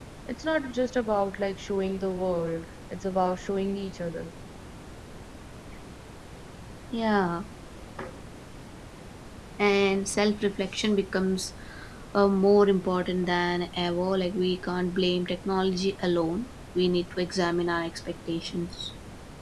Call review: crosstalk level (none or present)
none